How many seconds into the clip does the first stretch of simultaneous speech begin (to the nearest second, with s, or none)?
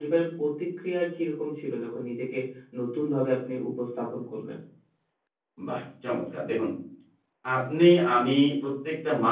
none